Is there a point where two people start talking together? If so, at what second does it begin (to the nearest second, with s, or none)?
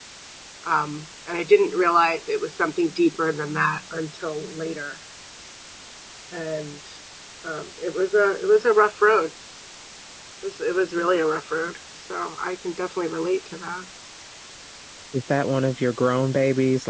none